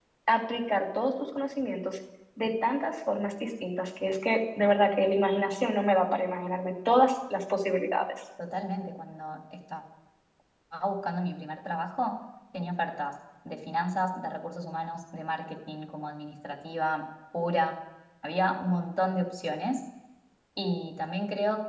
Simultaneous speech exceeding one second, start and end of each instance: none

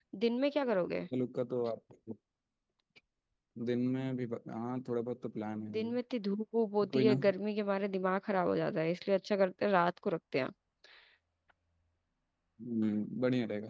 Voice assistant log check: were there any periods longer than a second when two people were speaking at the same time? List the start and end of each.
none

